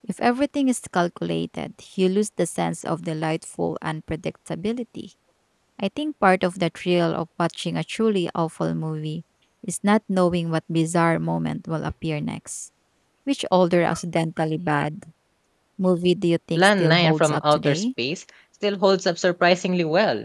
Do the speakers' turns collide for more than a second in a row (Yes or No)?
Yes